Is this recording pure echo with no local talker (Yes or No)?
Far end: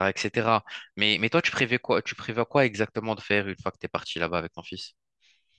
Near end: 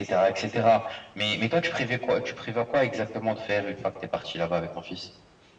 Yes